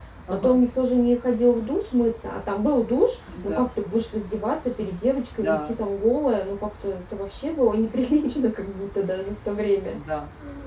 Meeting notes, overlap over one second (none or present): none